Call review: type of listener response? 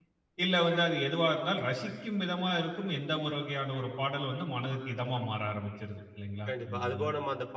taking over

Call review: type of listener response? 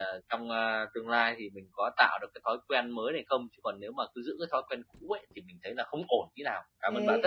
taking over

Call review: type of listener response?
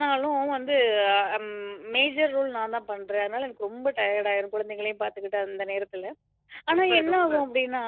listening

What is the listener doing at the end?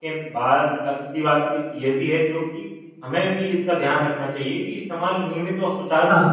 listening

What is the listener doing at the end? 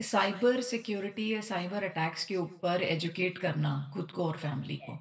taking over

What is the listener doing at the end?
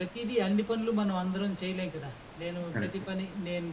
listening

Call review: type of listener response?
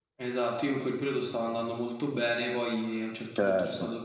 listening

